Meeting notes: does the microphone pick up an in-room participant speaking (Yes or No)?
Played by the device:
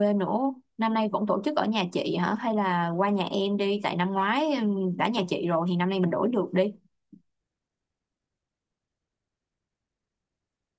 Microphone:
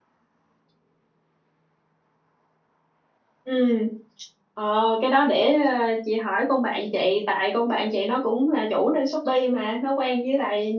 Yes